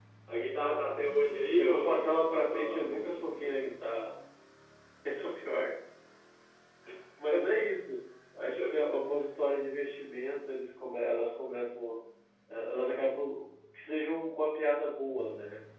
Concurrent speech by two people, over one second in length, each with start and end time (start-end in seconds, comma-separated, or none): 1.6-3.2